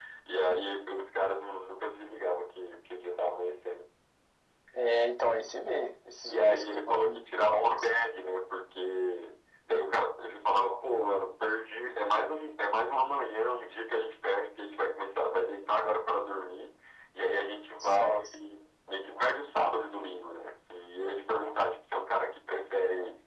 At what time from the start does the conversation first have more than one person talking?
6.3 s

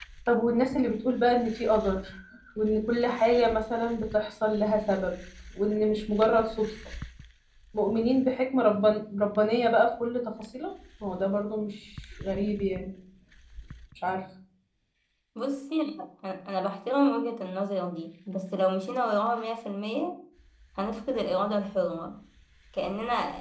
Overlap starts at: none

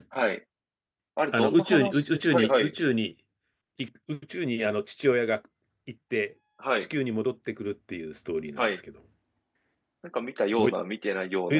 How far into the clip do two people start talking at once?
1.3 s

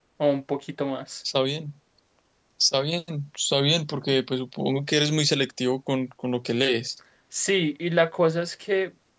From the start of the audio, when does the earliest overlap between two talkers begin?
none

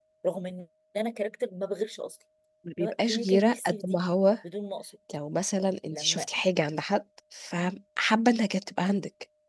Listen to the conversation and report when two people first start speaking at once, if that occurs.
2.8 s

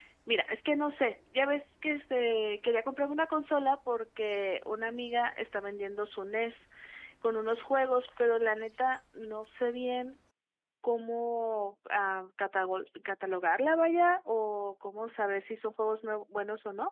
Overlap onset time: none

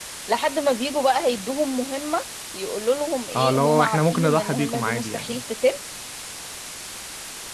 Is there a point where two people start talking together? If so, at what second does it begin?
3.3 s

